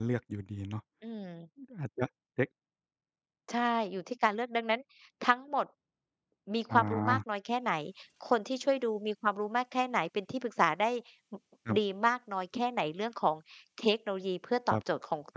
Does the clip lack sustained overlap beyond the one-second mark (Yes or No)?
Yes